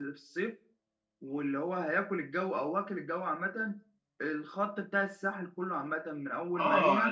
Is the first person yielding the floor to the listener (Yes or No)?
Yes